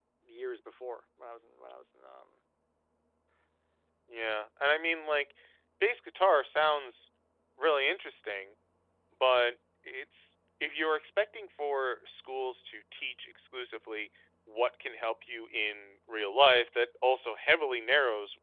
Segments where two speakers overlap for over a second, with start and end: none

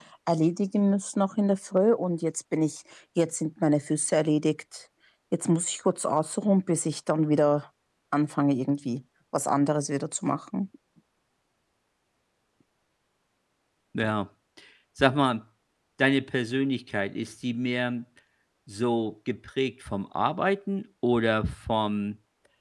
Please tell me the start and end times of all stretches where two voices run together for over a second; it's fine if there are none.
none

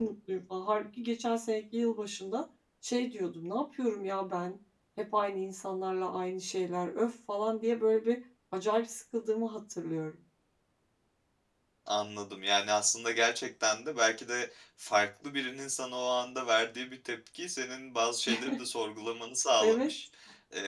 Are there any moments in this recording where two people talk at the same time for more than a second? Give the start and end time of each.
none

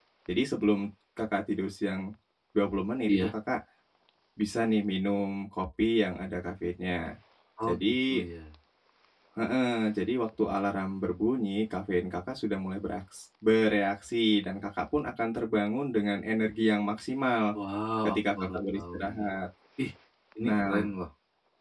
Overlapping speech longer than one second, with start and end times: 18.0-19.3

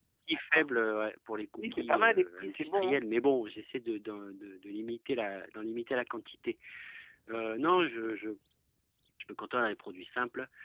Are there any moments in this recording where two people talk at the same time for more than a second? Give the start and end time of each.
1.6-3.0

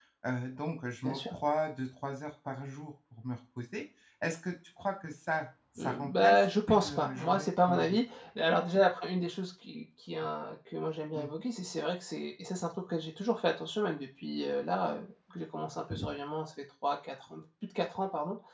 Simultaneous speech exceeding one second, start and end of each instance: 5.8-8.0

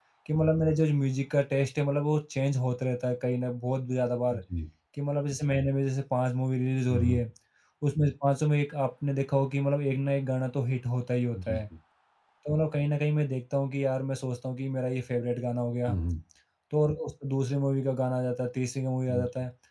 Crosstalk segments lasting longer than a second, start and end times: none

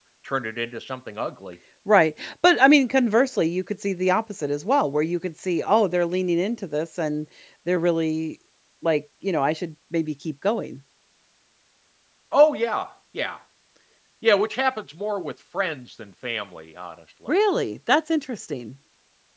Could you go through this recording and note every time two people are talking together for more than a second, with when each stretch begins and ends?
none

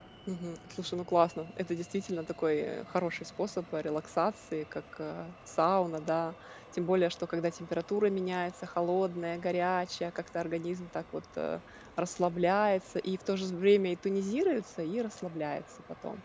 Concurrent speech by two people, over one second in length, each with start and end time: none

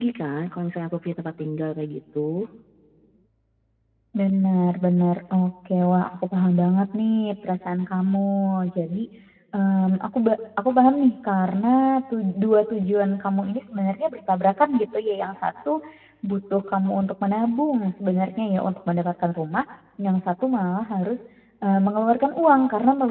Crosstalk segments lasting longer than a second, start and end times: none

